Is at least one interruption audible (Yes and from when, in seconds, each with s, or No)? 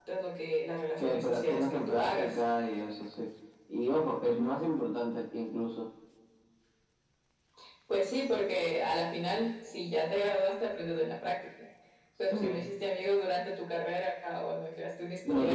Yes, from 1.0 s